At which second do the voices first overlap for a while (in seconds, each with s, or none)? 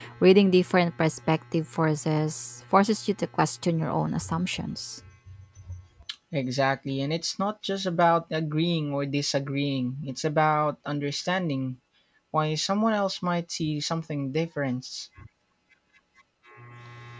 none